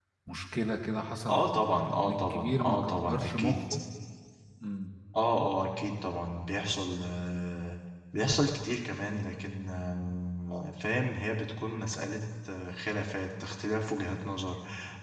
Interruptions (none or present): present